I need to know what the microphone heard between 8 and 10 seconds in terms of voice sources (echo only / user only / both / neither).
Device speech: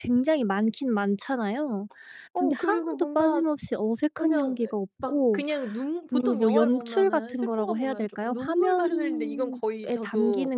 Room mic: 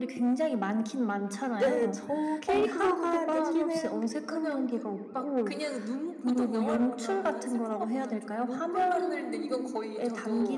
echo only